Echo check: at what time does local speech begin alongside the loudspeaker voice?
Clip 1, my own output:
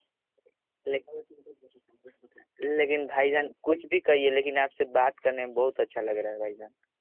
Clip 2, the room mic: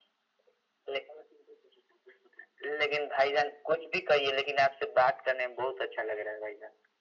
none

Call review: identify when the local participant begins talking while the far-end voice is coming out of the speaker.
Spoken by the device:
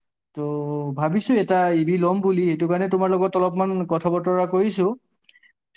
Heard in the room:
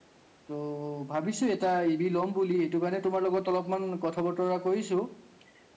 none

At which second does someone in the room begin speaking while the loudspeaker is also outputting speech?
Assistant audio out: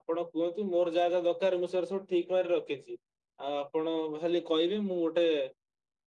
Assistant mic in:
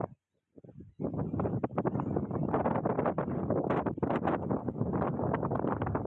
none

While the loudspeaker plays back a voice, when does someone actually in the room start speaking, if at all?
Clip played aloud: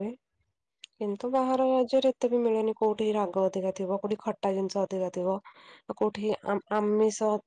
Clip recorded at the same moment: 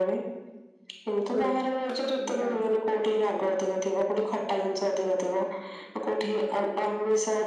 1.3 s

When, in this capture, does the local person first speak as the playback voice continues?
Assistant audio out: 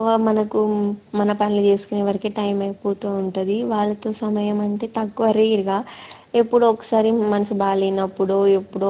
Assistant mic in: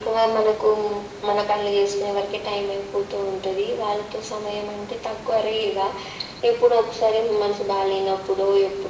none

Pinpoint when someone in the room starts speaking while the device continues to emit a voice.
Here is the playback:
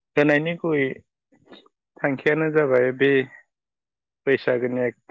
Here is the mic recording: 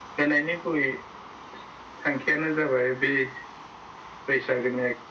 none

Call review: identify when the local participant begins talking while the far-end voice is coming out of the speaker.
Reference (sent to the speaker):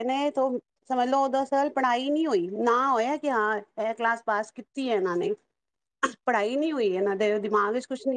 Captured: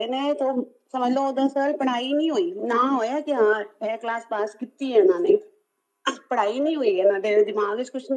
none

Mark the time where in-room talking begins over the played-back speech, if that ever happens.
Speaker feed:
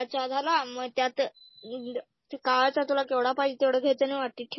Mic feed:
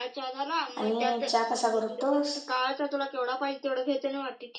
0.8 s

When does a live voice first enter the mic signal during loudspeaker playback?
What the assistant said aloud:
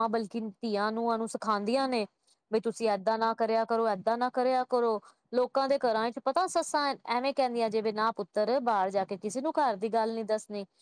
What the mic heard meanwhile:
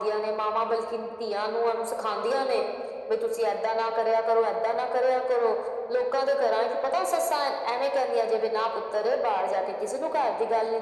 none

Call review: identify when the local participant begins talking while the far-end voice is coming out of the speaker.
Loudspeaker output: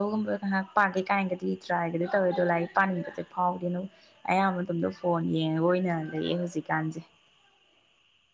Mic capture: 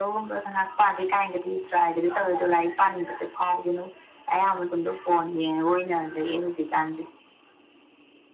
none

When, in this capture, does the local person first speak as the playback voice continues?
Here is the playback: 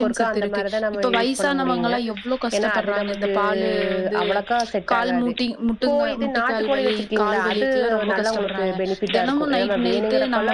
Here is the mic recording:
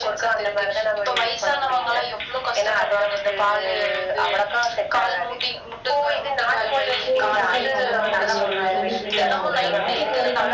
7.1 s

